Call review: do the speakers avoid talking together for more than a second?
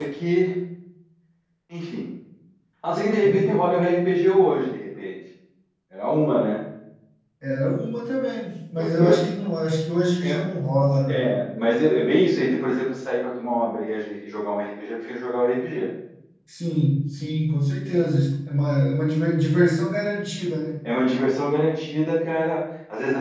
Yes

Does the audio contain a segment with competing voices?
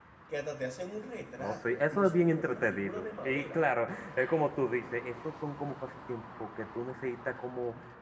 Yes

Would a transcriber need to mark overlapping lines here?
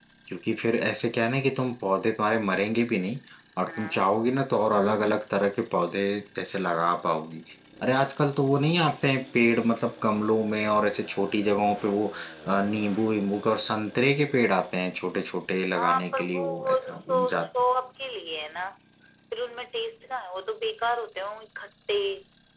Yes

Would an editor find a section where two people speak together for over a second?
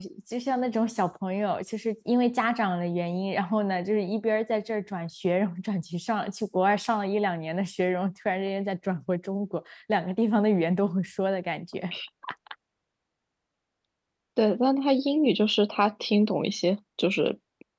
No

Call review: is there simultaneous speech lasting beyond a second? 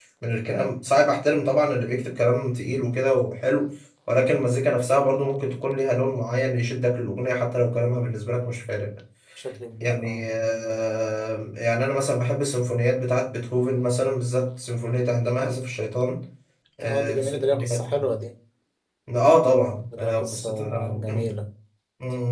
Yes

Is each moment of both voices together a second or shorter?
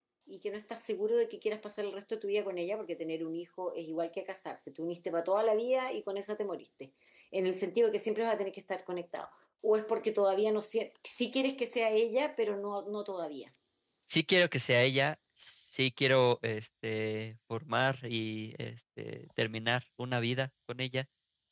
Yes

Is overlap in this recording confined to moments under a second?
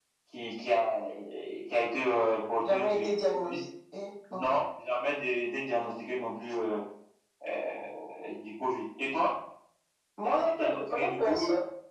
No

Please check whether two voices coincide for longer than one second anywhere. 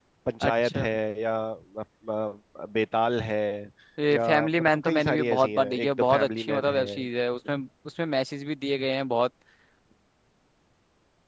Yes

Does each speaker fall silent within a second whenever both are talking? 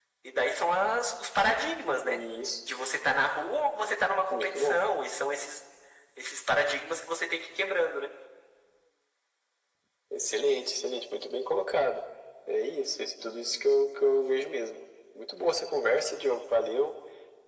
Yes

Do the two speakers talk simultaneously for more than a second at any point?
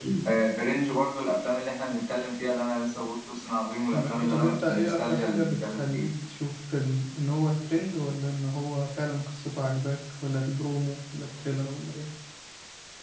Yes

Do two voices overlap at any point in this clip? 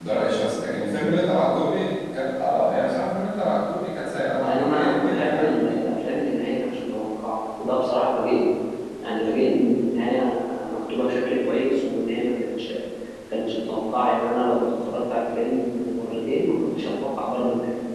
Yes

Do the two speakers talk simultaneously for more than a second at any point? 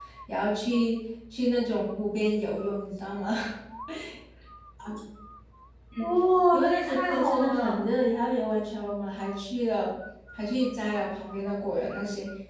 Yes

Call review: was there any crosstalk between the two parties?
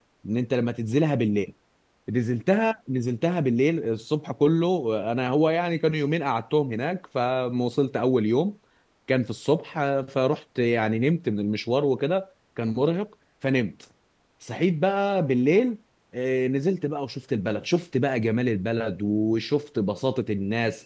No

